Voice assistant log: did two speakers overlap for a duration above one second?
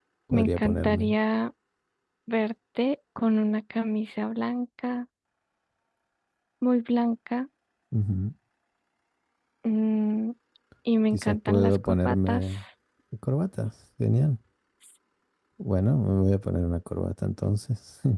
Yes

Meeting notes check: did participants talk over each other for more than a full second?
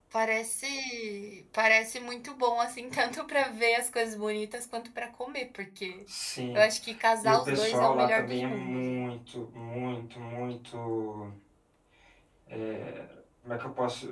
Yes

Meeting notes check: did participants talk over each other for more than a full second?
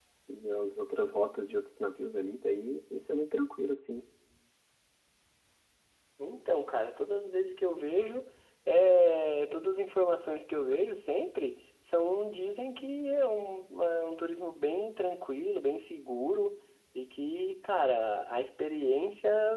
No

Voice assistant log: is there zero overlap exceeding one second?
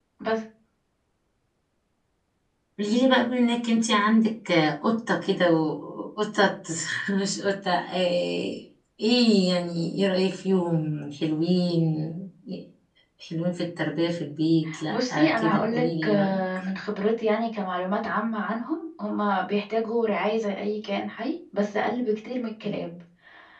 No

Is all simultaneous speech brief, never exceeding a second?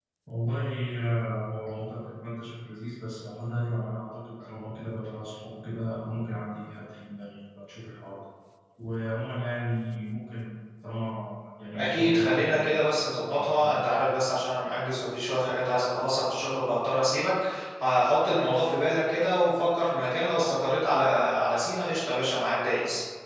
No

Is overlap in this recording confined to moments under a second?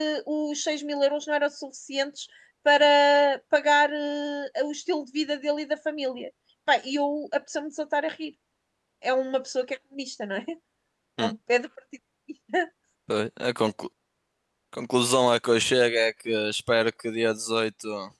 Yes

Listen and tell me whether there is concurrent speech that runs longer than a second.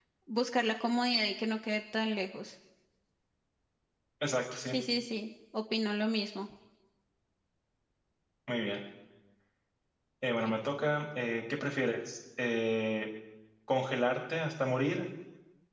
No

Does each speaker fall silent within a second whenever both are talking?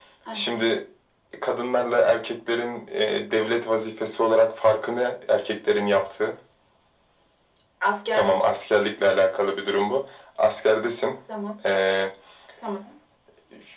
Yes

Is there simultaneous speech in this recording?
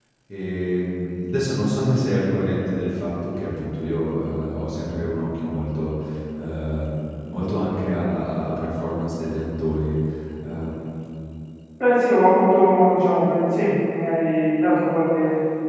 No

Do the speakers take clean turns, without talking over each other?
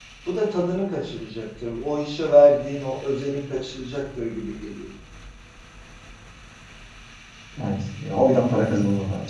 Yes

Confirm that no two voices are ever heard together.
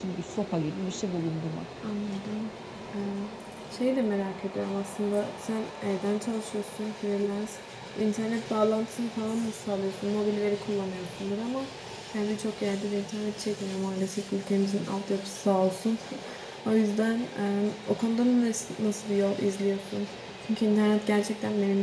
Yes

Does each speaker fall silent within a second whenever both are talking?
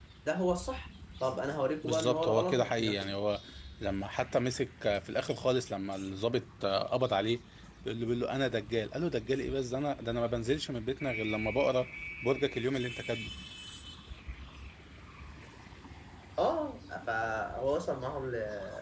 No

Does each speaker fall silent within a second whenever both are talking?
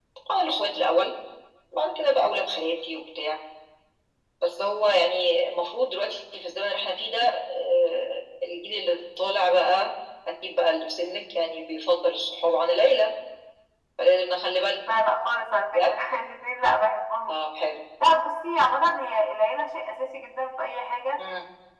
Yes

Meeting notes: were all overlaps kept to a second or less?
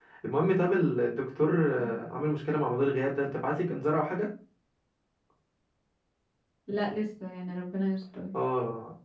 Yes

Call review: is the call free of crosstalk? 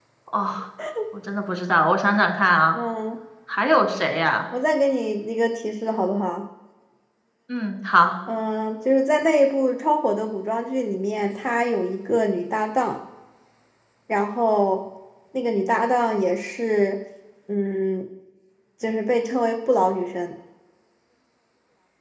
Yes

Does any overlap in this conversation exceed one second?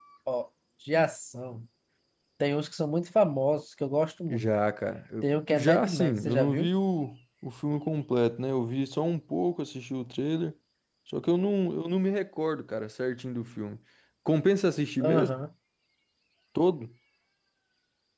Yes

